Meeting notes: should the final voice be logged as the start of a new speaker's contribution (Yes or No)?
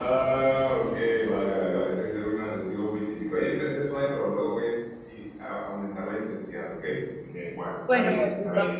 Yes